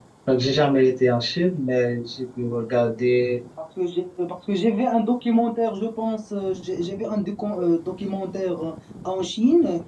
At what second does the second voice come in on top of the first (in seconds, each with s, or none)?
none